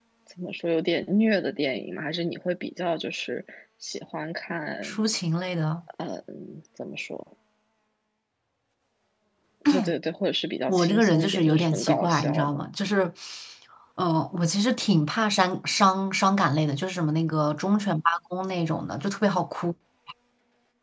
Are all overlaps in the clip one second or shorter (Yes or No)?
No